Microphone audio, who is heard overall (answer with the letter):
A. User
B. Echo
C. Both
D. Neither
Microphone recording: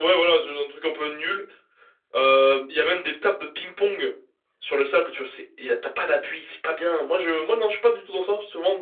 B